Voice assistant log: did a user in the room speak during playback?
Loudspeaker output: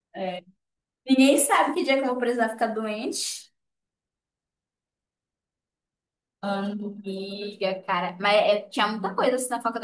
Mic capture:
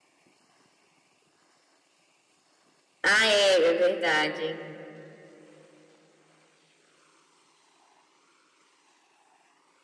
Yes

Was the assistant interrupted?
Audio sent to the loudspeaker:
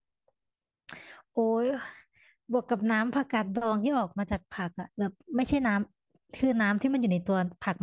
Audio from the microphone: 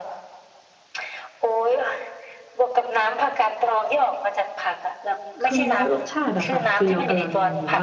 Yes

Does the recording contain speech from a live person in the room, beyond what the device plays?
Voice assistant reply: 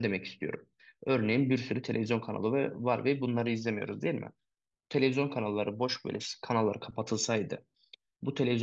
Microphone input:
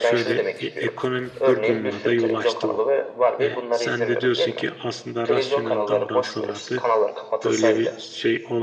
Yes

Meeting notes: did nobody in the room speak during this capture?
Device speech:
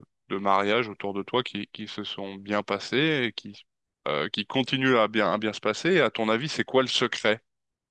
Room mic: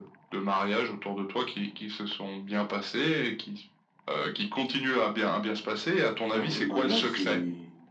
No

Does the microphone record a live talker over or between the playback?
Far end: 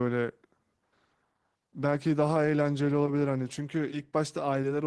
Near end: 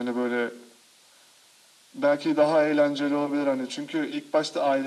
No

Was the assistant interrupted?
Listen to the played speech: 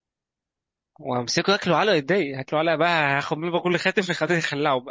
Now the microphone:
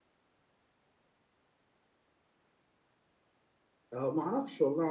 Yes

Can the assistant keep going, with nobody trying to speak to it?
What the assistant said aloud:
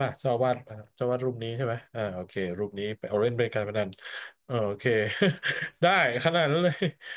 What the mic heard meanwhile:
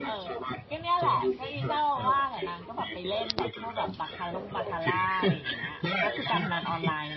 No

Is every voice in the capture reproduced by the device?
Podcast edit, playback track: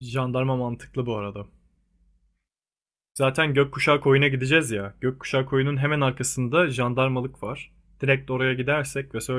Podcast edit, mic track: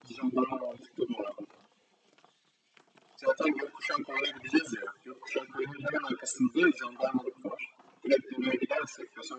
Yes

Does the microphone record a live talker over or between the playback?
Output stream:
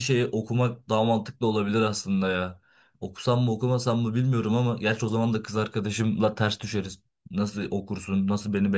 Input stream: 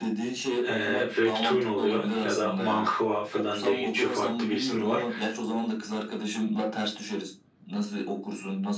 Yes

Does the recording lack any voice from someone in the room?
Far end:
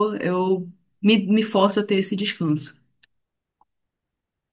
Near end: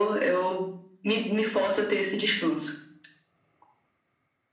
Yes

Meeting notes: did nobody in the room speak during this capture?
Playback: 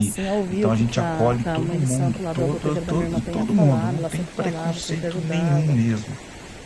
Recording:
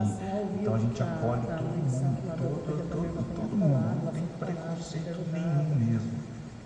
Yes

